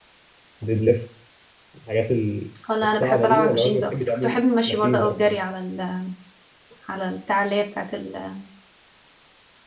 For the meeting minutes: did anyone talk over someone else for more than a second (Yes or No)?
Yes